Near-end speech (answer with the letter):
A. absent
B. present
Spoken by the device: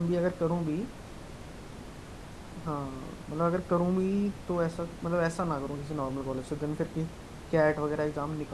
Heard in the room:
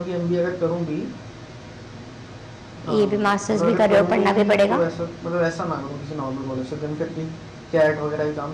B